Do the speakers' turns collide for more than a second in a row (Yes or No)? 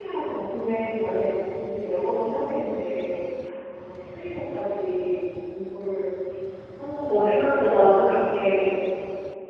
Yes